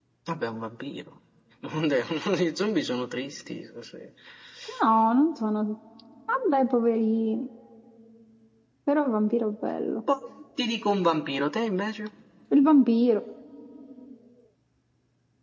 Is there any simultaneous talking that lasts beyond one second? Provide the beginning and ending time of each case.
none

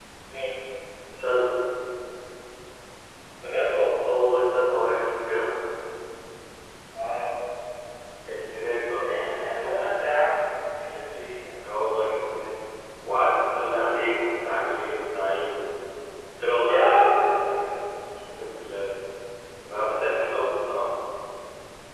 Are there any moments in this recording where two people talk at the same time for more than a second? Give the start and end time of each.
none

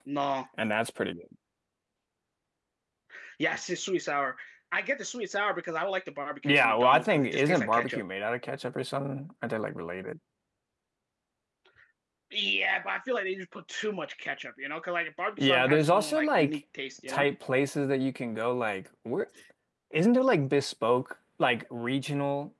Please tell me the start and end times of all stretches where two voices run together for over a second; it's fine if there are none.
6.4-8.0, 15.4-16.6

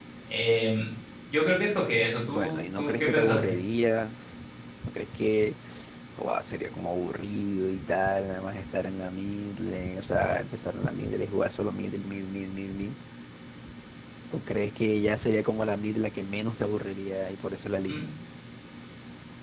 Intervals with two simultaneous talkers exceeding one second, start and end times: 2.2-3.6

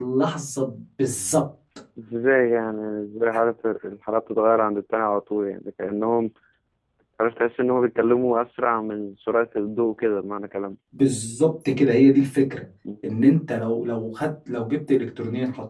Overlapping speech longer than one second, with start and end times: none

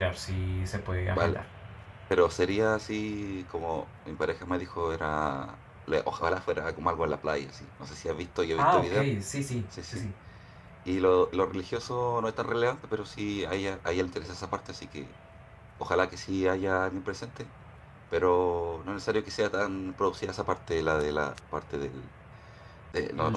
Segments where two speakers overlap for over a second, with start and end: none

